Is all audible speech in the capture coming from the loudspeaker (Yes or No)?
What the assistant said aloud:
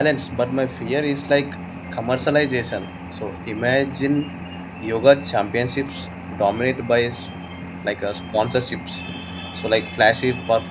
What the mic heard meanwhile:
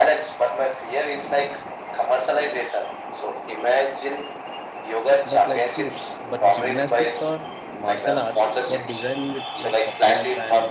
No